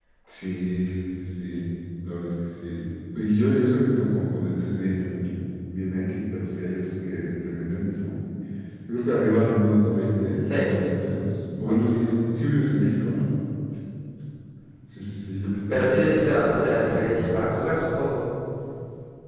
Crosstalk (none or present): present